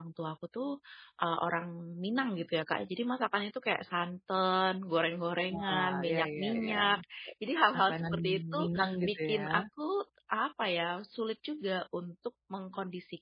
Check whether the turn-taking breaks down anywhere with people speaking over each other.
Yes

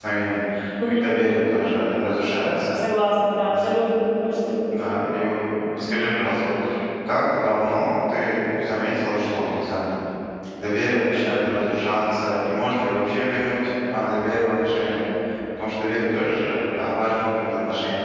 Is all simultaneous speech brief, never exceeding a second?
Yes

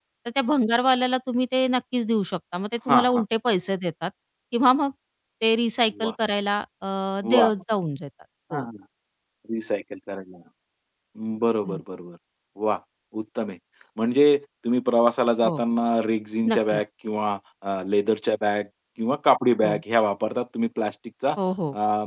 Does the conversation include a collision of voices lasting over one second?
No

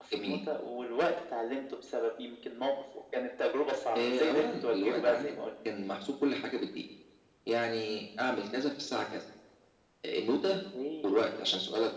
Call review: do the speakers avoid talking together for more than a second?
No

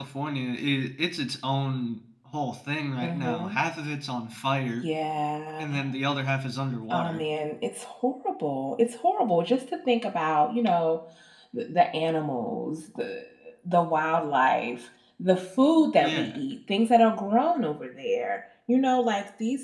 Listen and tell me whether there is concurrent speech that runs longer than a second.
No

